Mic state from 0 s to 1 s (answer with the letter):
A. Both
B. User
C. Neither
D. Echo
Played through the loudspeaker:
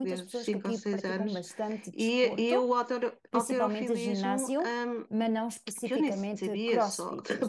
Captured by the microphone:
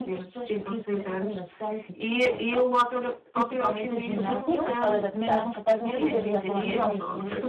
D